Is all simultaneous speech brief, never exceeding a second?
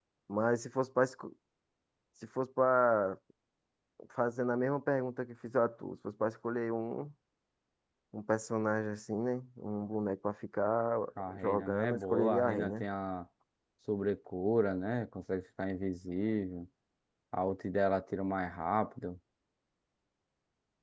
No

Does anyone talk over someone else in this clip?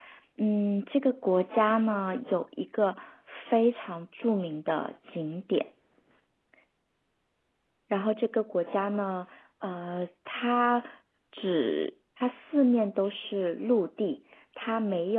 No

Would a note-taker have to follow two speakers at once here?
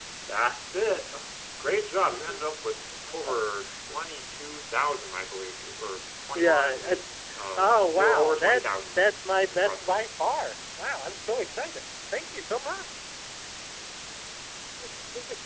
Yes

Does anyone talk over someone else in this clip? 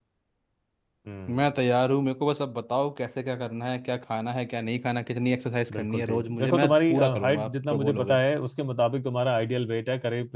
Yes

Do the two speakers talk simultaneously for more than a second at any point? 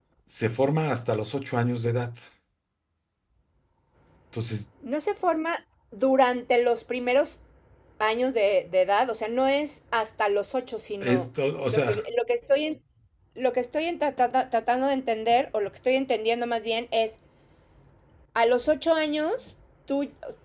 No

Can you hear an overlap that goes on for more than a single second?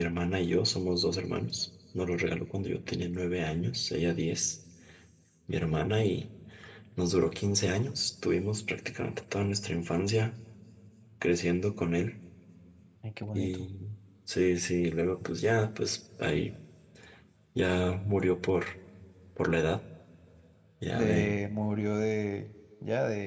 No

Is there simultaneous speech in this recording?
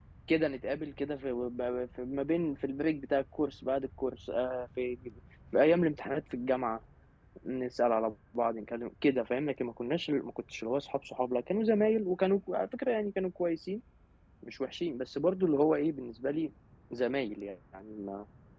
No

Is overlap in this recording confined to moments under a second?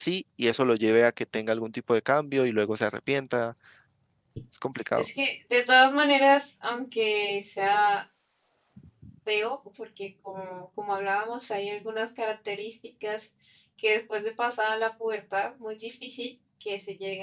Yes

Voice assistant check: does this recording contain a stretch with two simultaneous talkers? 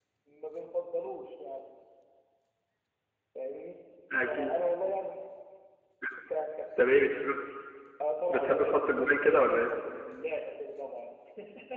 Yes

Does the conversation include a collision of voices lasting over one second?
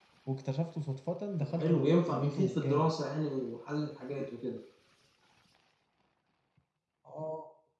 Yes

